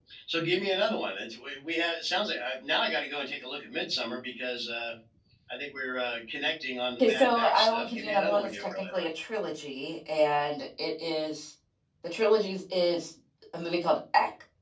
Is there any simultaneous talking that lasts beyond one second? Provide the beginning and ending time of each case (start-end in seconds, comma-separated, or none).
7.0-9.1